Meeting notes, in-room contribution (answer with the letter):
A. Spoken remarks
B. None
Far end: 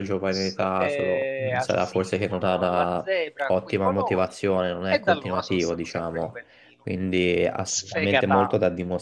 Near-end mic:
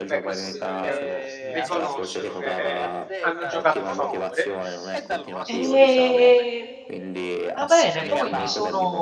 A